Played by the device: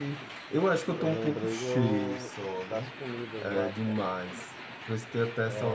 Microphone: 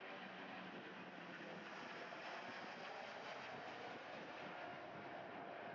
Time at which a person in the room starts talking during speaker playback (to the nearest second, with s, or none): none